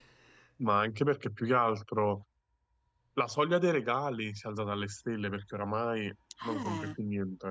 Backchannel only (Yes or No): Yes